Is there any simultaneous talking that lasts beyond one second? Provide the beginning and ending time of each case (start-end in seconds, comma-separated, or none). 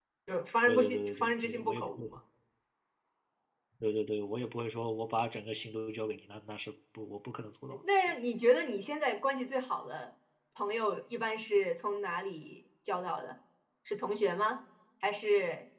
0.7-2.0